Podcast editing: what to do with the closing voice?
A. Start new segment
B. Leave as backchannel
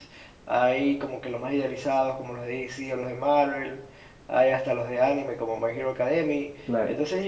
B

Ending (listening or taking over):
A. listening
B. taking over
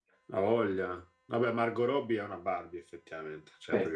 A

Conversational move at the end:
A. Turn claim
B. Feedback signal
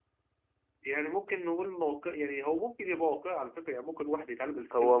A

